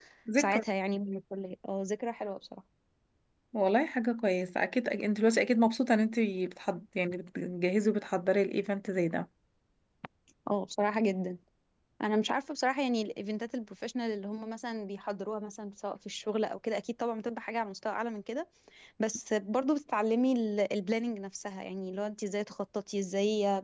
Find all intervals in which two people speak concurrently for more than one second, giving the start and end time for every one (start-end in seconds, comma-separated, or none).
none